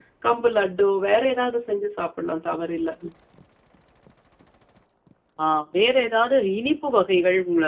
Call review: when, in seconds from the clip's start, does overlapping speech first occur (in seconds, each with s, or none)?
none